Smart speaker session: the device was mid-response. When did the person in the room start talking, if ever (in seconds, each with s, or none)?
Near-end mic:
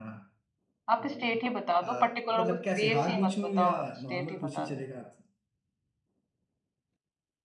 0.9 s